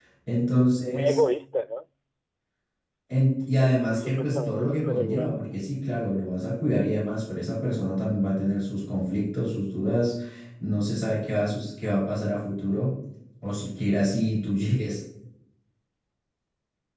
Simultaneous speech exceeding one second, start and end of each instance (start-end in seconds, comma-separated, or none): 3.6-5.4